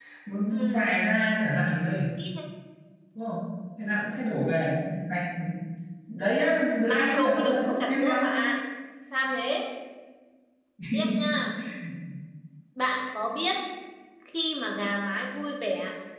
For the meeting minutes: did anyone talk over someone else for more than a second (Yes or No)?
Yes